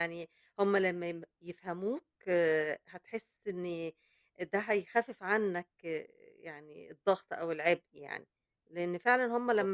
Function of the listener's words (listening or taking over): listening